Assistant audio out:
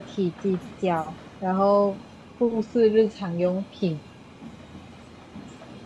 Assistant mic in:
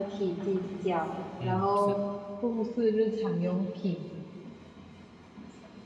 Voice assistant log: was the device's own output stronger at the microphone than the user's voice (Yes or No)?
Yes